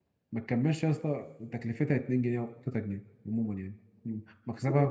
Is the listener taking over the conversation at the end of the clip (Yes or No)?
Yes